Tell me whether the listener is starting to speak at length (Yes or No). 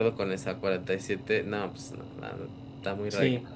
Yes